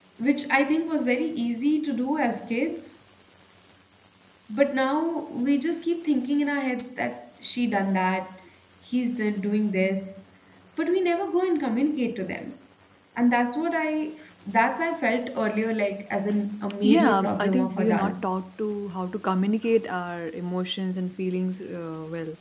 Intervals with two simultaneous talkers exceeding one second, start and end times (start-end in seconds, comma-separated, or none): 16.8-18.3